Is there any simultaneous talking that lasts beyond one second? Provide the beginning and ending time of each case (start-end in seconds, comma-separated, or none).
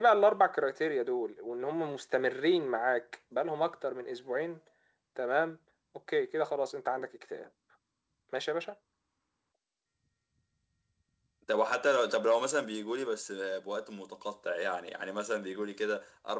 none